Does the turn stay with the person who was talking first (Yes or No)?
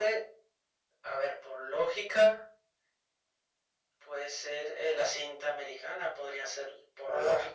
No